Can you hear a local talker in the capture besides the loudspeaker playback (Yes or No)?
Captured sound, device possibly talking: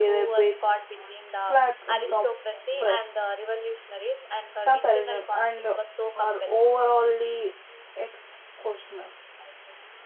Yes